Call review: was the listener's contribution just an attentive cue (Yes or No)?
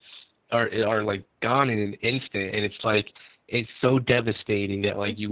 Yes